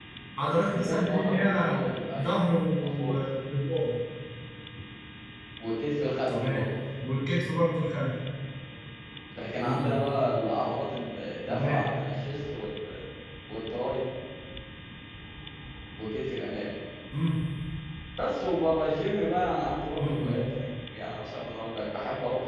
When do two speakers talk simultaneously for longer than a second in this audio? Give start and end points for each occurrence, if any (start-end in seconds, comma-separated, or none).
0.7-2.4